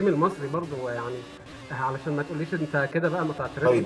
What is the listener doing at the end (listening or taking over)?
taking over